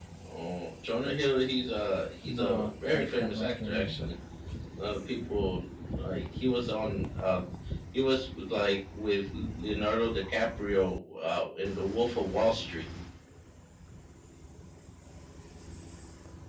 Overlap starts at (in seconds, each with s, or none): 2.2 s